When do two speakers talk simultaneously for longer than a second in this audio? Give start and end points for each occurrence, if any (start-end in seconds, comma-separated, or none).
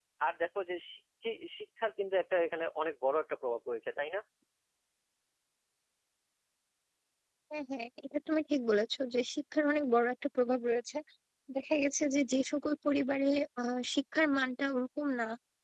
none